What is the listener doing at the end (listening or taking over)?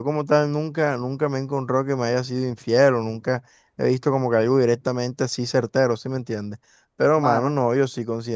listening